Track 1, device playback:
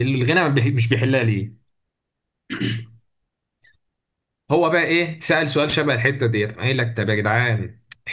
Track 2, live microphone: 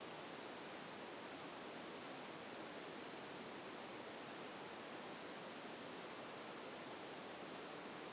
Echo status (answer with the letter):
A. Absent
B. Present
A